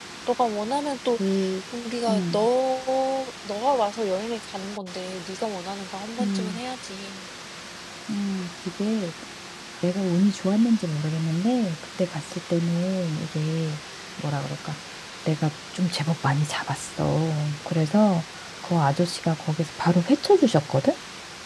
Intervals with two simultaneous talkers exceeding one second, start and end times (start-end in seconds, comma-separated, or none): none